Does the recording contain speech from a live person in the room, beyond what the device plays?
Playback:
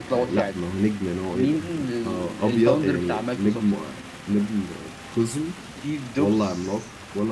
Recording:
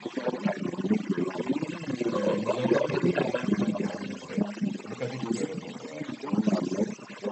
Yes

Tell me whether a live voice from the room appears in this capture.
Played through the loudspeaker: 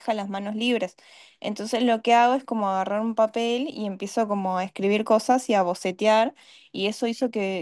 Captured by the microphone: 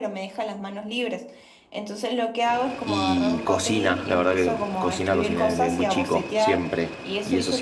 Yes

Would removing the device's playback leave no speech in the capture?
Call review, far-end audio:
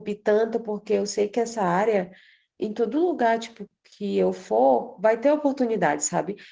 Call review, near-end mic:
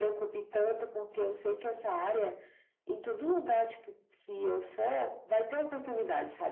Yes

